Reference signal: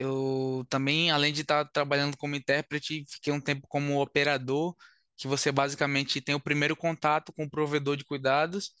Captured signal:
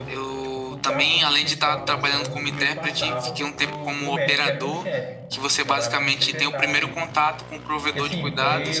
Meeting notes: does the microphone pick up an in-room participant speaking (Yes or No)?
Yes